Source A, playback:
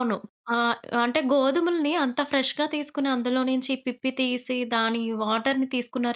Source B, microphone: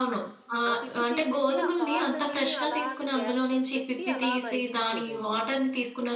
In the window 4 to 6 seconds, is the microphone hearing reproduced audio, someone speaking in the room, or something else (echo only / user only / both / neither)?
both